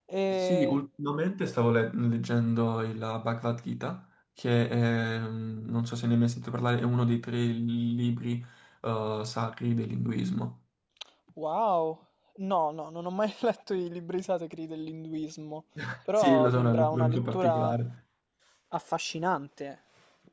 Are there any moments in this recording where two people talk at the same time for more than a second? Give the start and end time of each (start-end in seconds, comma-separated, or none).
16.2-17.8